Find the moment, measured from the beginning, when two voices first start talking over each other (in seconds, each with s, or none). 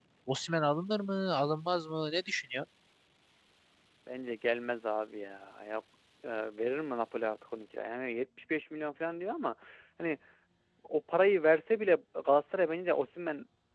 none